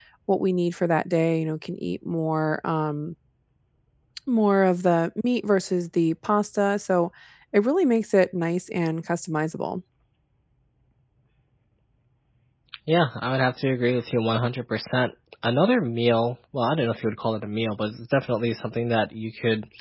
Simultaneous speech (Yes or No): No